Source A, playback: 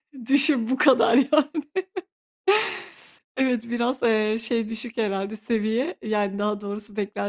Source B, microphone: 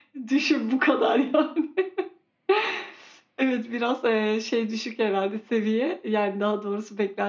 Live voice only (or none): none